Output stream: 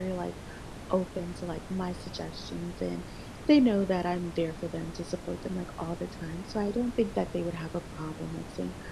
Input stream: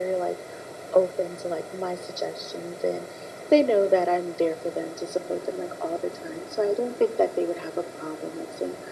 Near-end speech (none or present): none